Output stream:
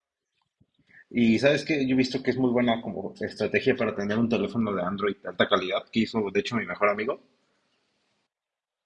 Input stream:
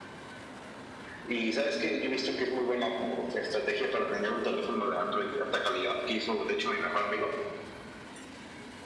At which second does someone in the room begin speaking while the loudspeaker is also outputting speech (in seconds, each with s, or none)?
none